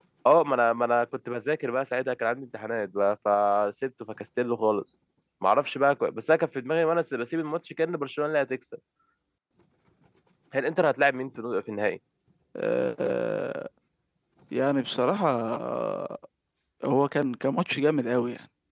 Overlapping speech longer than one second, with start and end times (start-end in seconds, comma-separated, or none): none